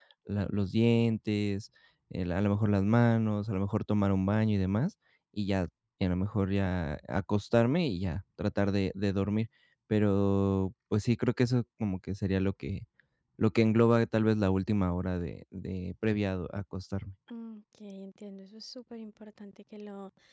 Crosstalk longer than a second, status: none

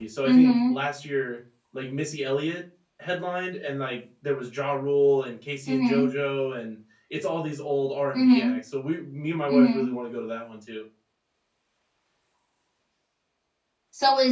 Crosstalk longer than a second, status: none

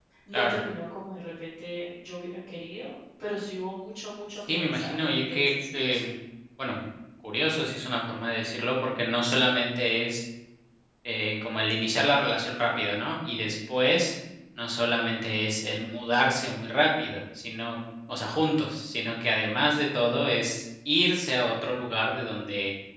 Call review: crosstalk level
present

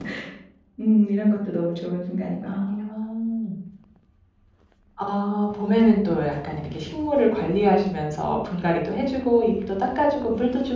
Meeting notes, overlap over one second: none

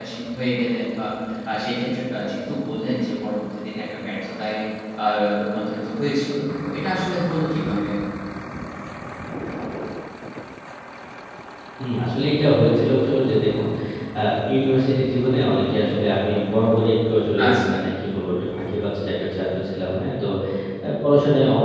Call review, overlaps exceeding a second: none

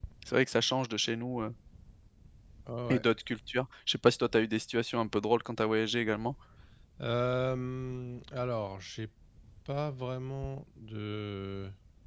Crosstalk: none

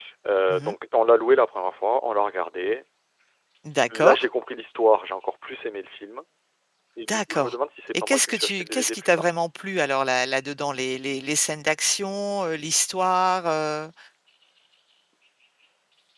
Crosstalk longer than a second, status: present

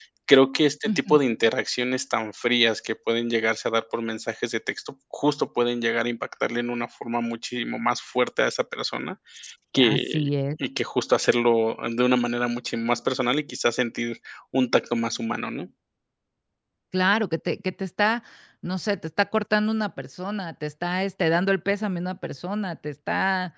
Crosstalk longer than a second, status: none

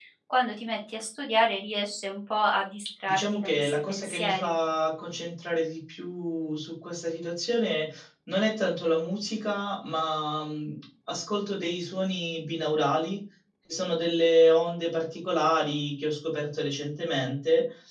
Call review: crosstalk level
present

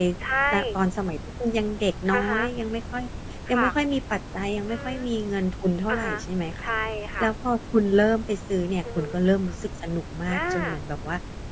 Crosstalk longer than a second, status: none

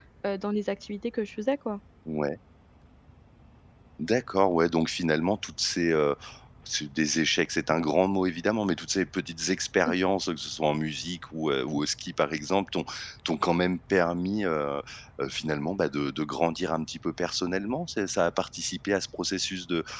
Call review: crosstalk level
none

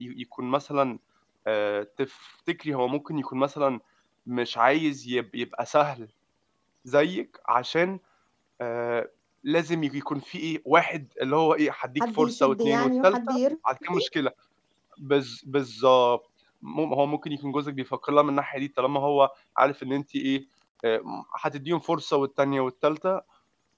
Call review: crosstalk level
present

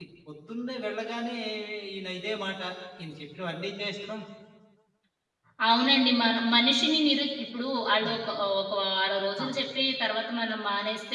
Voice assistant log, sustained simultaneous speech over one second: none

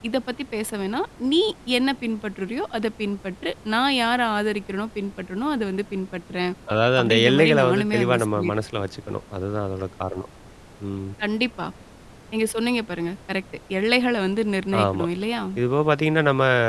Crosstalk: present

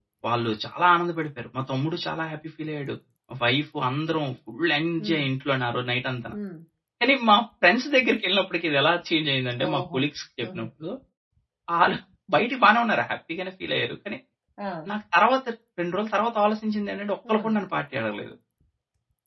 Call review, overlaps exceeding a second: none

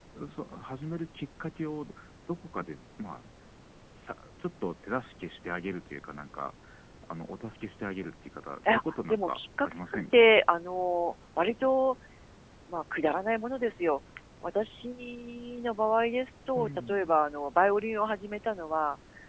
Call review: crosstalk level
present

